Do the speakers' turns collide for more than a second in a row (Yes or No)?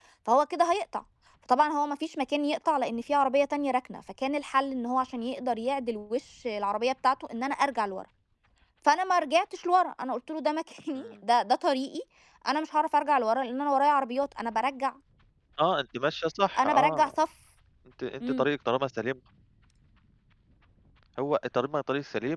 No